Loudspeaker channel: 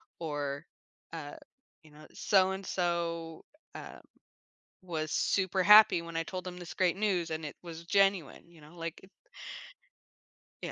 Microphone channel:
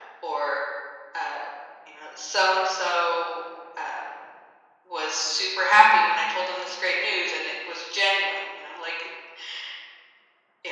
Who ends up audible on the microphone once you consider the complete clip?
echo only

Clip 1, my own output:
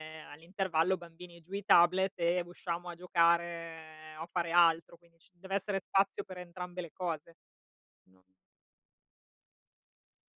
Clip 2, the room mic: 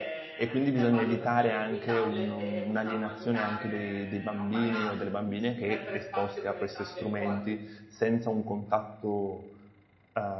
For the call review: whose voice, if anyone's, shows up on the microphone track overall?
both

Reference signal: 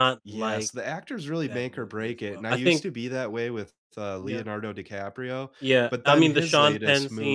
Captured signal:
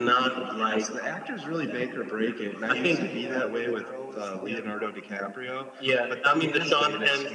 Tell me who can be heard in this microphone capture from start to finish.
both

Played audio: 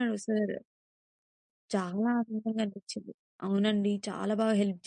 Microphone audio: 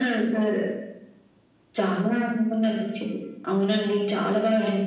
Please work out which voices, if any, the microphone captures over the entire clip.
echo only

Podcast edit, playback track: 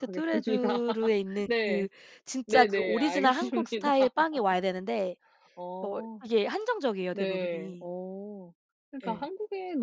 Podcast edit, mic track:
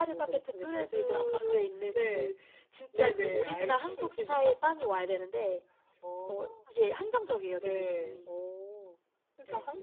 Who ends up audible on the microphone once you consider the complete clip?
echo only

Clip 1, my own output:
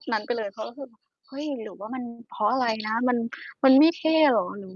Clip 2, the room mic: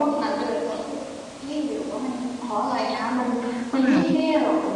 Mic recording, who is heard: both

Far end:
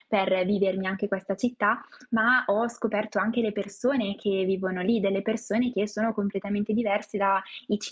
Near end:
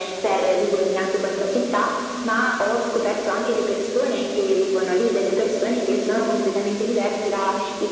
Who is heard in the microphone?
echo only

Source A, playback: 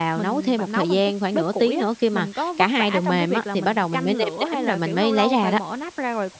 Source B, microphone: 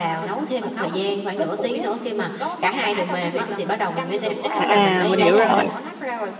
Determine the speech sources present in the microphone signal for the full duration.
both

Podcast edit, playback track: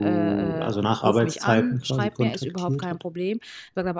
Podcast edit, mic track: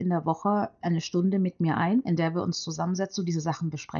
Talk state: user only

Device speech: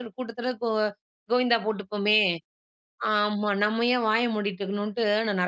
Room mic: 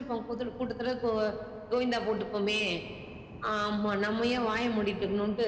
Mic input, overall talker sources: echo only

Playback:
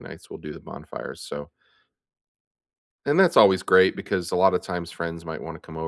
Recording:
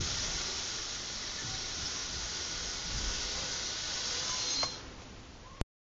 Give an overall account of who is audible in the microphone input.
neither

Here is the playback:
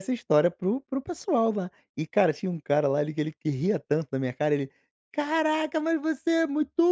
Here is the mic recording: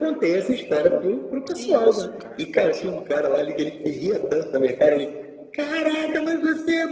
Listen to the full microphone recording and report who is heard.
both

